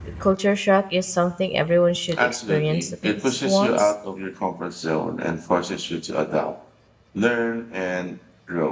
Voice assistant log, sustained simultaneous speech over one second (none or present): present